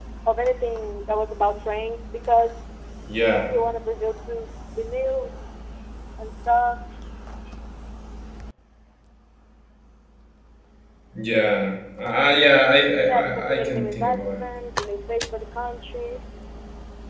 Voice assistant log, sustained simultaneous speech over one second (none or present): present